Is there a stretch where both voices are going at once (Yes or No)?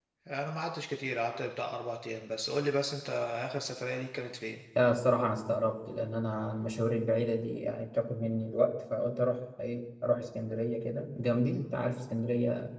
No